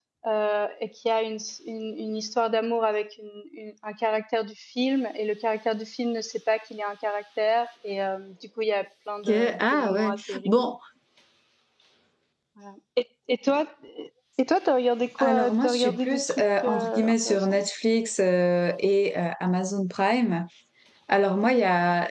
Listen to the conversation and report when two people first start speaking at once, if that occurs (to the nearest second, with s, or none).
9 s